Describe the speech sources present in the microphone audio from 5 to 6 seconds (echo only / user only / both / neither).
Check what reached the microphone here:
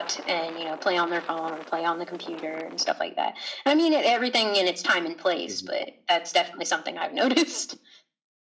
both